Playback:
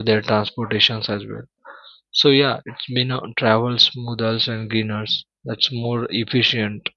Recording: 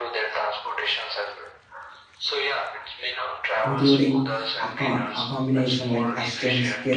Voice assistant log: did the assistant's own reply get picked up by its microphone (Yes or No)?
Yes